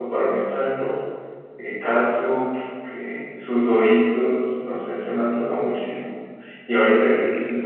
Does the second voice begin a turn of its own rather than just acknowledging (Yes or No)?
No